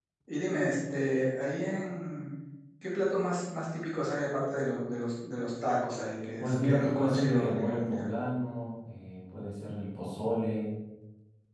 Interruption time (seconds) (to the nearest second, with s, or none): 6 s